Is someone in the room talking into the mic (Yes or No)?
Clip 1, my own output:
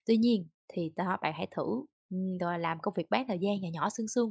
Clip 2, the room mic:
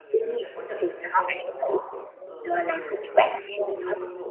Yes